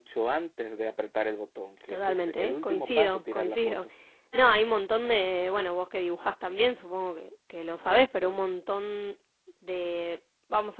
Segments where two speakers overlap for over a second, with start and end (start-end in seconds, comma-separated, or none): 1.9-3.9